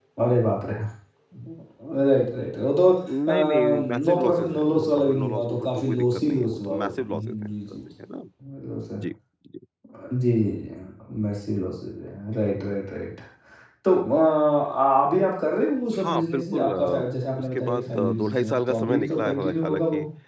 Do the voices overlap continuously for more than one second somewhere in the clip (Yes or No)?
Yes